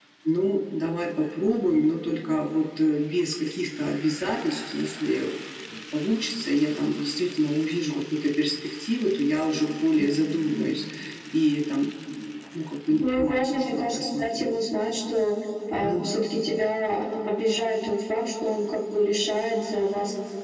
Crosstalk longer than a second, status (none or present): present